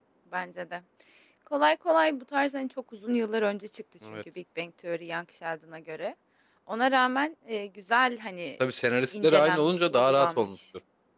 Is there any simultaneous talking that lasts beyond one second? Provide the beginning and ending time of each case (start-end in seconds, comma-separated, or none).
9.1-10.5